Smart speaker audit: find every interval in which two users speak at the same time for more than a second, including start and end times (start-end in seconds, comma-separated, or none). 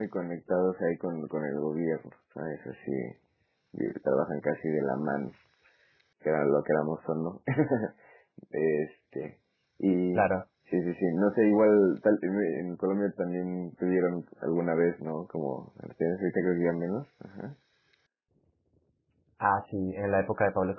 none